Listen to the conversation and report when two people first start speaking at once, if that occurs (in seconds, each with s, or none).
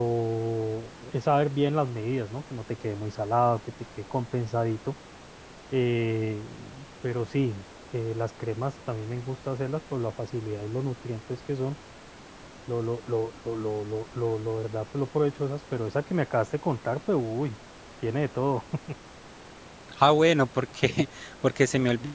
none